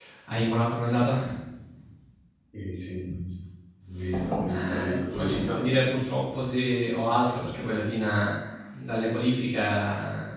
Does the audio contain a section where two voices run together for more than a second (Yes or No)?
Yes